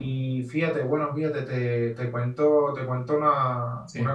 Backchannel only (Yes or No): Yes